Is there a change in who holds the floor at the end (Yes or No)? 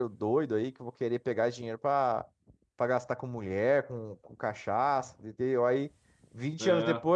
No